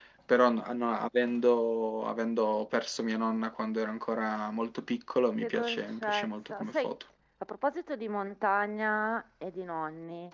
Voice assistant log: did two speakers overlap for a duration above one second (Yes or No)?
Yes